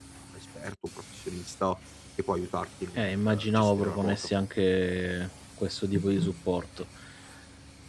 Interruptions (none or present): present